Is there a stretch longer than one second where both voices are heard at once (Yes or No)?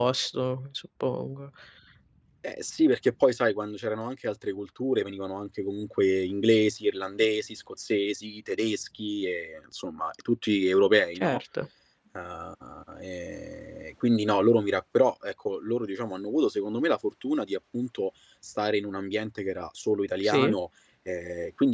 No